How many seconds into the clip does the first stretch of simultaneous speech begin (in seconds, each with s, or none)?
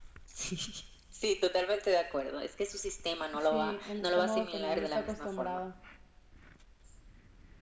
3.4 s